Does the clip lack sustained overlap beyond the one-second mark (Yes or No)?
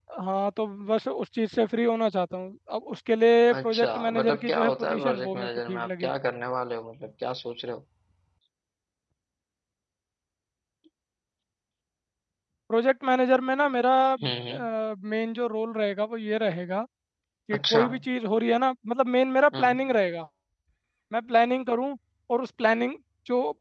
No